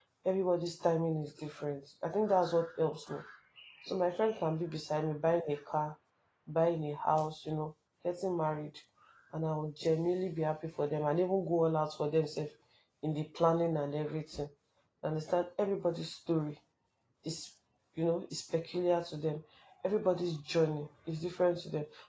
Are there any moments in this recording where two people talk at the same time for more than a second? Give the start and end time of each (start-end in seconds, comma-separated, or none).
none